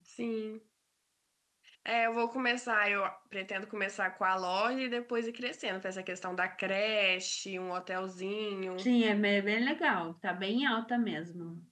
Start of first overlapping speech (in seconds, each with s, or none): none